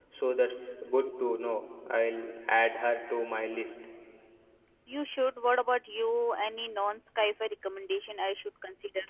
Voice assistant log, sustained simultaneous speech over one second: none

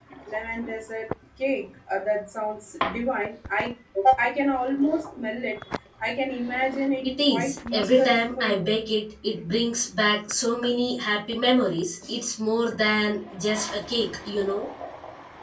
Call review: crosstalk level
present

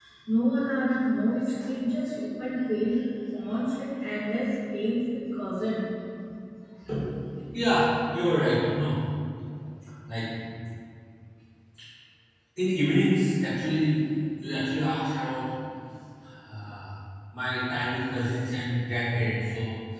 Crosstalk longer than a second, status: none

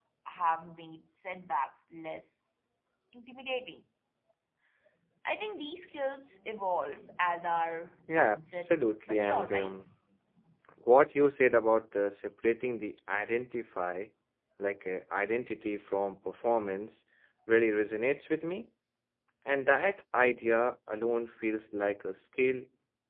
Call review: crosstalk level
present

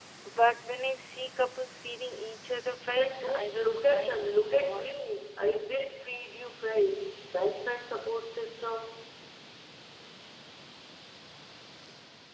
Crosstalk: present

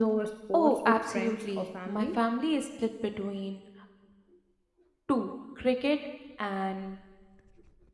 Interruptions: present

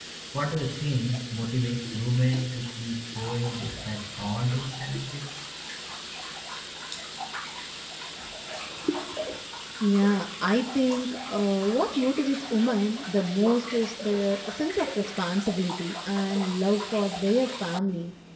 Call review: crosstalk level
none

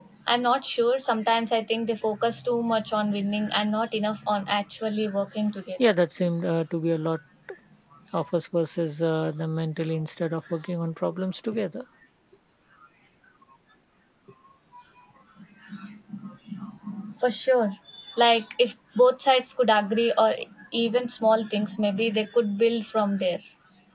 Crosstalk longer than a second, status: none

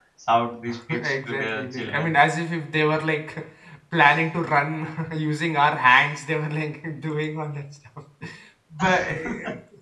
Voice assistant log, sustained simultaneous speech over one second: present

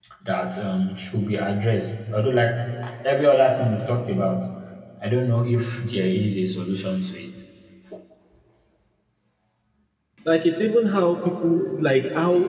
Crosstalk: none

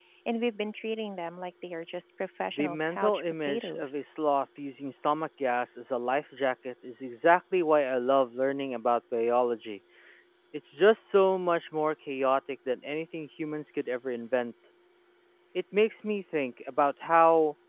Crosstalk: present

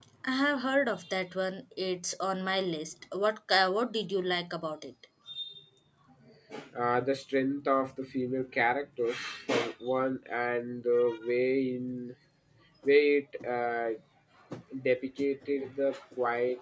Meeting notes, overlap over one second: none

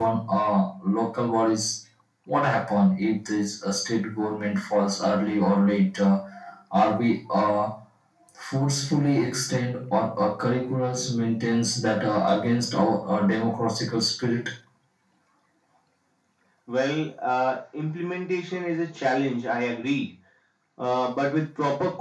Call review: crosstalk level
none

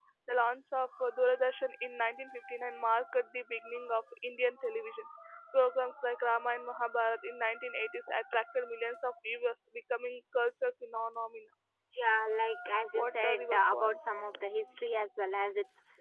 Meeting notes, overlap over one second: present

